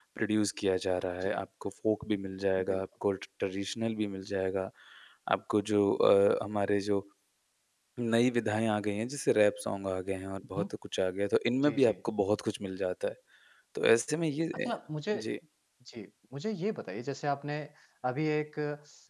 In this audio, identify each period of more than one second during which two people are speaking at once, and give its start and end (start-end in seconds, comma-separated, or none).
none